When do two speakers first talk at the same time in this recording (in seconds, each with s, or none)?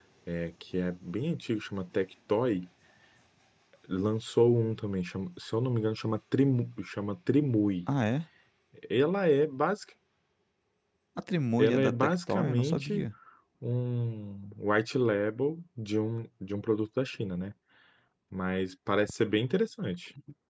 11.6 s